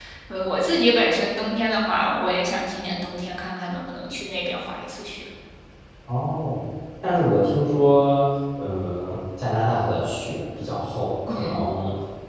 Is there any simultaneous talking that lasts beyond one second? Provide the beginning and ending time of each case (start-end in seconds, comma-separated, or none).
none